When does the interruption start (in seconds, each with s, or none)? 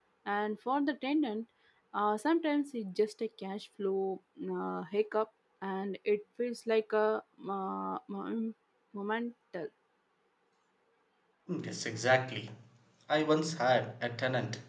none